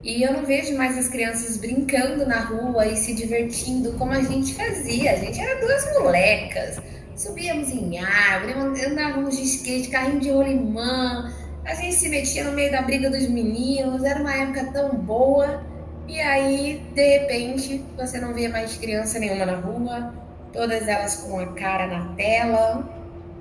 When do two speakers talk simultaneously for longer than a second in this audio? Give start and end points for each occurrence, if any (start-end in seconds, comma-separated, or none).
none